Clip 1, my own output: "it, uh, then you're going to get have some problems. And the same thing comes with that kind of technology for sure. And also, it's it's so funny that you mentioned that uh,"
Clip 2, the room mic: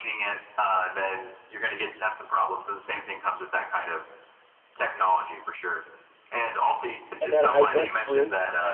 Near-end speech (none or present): present